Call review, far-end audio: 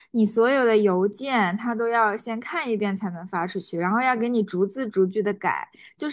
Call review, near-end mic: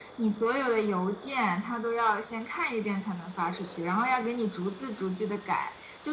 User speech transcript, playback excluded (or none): none